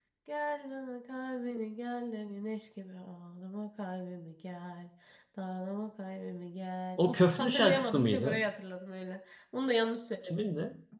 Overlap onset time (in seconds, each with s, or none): 7.0 s